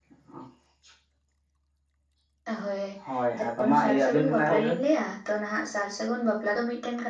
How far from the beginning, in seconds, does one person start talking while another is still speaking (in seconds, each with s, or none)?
3.4 s